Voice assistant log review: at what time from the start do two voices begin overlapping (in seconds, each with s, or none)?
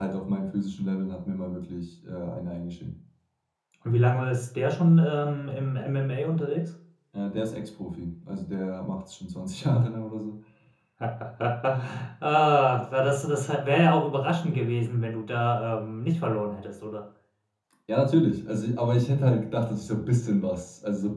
none